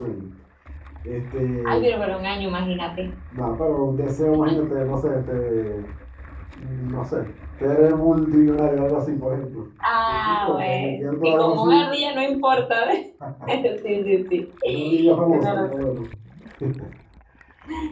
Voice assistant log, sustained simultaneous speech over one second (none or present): present